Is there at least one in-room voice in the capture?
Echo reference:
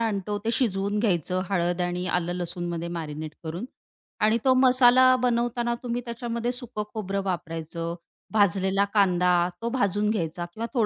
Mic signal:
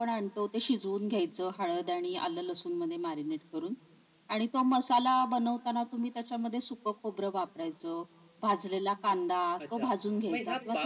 Yes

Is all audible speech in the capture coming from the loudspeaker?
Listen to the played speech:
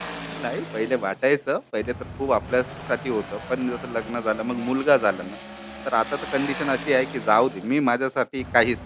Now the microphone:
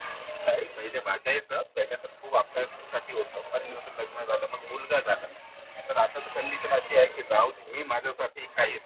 Yes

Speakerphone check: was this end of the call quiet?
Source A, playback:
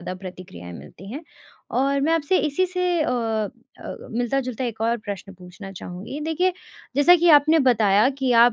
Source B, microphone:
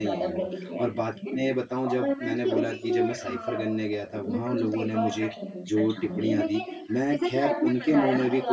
No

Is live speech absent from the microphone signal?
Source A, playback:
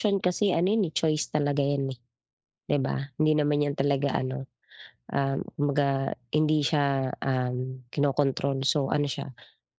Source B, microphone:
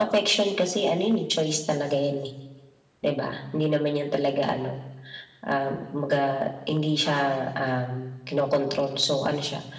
No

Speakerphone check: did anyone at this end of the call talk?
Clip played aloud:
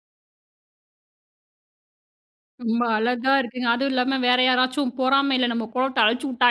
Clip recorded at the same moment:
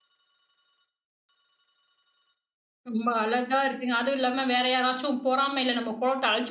No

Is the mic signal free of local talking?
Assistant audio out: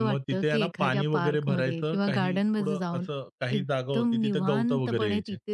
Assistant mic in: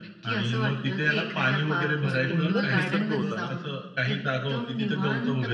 No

